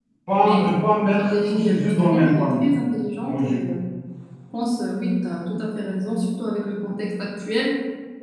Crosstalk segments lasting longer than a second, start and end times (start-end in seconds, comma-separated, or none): 1.1-2.7